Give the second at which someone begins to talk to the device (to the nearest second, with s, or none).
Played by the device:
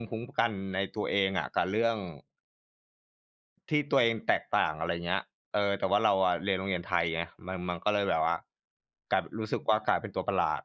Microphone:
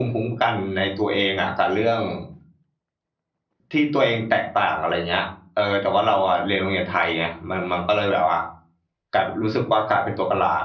none